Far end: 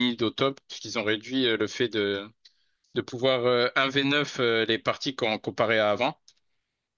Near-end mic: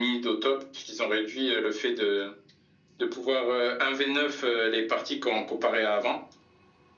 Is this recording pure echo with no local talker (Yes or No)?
Yes